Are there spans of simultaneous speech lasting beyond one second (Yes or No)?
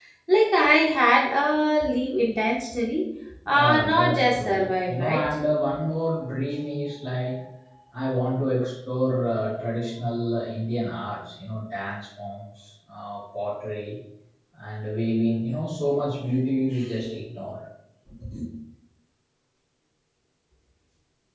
Yes